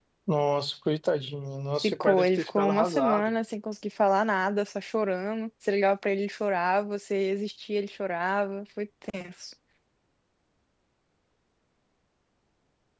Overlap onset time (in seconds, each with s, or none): 1.8 s